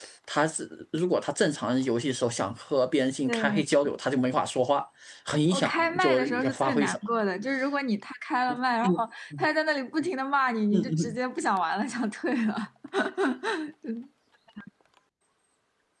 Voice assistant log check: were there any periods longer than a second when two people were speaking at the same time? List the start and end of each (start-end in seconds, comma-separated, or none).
5.5-7.0